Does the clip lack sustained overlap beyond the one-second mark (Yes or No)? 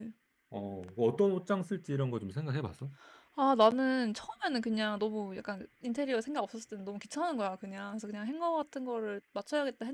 Yes